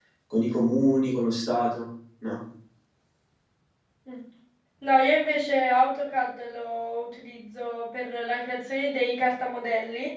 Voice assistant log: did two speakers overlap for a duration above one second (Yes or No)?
No